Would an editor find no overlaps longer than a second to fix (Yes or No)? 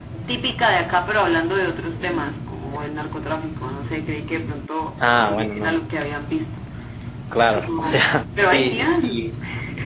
No